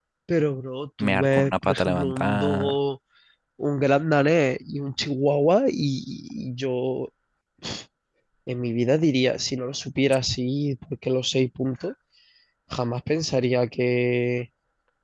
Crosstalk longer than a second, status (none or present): present